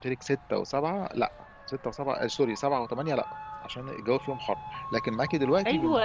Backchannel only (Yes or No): No